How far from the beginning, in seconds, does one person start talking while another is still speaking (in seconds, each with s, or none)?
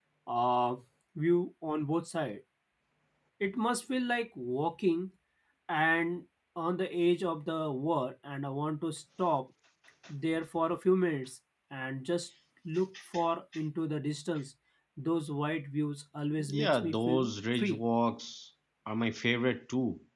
16.4 s